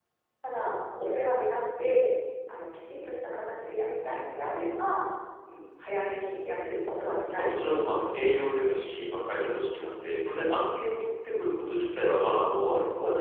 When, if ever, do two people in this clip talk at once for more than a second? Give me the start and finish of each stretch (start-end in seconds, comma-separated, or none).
7.3-8.9